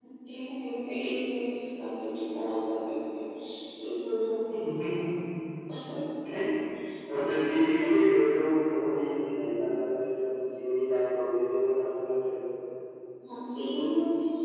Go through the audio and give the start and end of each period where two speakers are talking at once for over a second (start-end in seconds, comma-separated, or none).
none